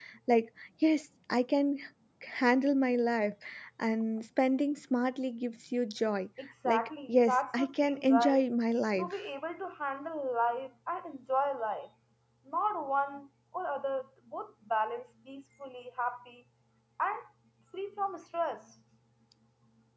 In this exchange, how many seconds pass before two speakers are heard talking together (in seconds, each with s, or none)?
6.7 s